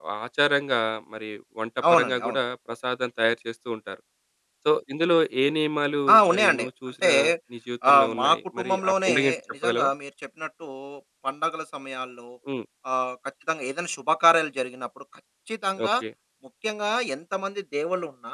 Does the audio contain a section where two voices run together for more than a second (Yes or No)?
Yes